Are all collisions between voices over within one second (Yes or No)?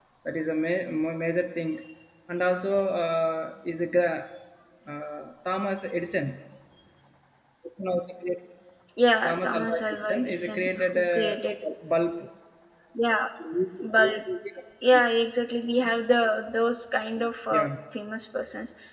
No